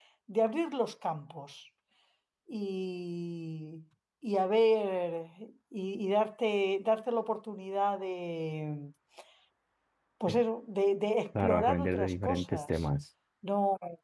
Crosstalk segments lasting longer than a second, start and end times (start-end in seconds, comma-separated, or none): 11.4-12.8